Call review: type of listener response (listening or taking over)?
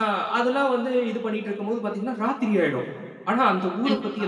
listening